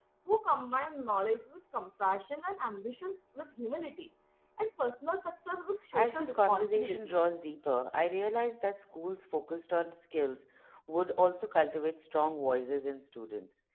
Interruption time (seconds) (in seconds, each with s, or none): 5.9 s